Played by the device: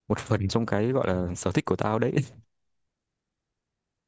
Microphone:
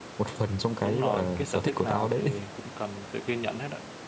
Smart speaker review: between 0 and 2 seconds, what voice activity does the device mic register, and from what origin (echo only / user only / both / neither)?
both